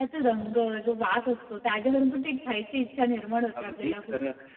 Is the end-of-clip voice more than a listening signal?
Yes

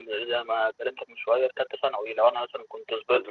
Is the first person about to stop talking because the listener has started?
No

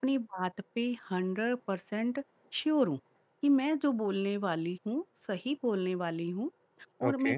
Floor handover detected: No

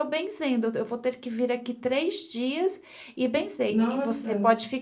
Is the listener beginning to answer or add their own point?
No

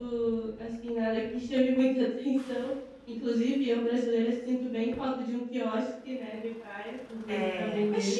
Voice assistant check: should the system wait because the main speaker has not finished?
No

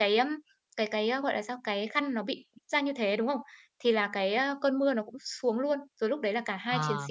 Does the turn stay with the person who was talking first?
Yes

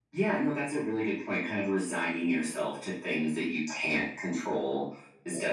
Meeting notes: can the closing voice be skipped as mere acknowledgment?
Yes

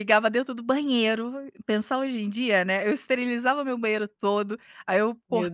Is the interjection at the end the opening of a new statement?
No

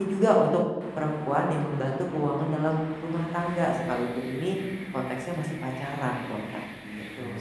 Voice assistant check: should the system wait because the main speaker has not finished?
No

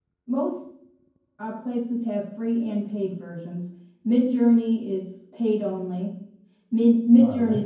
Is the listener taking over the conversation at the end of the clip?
No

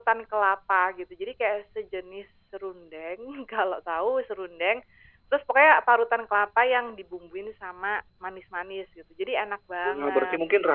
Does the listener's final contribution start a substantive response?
Yes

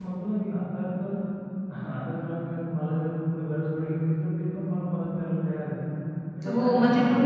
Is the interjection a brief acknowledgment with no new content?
No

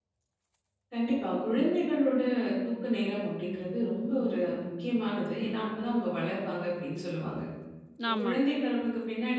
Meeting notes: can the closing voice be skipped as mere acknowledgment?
Yes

